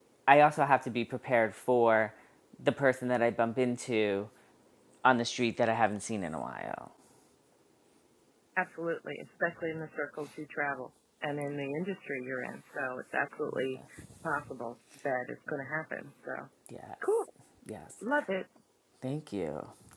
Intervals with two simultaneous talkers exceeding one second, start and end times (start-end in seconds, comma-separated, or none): none